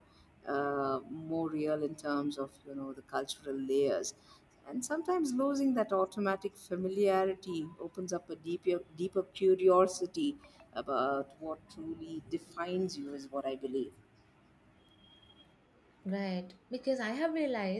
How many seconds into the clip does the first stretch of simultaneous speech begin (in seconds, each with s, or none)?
none